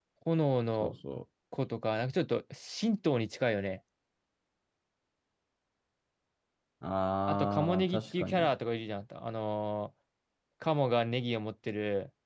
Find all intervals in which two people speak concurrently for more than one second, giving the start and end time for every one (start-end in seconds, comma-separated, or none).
7.3-8.5